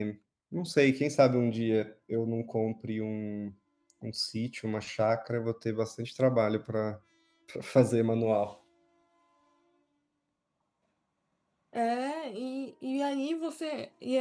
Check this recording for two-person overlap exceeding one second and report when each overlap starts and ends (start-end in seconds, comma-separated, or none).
none